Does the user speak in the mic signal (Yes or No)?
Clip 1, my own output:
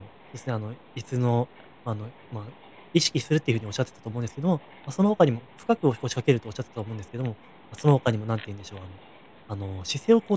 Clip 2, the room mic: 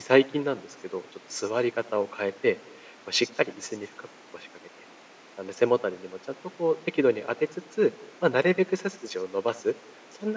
Yes